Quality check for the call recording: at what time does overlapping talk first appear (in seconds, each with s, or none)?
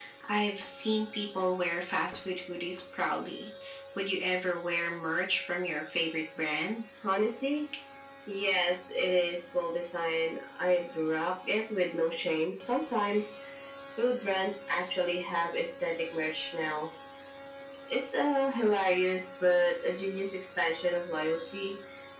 none